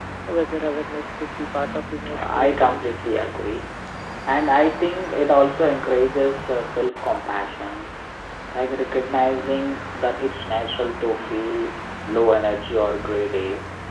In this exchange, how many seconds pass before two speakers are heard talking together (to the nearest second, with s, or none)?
2 s